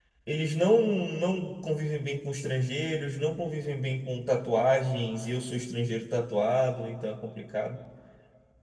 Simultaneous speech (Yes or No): No